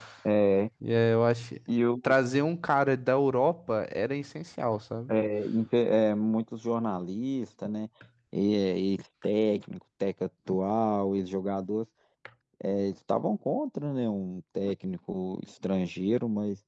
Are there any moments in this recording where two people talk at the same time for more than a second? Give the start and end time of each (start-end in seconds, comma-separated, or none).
none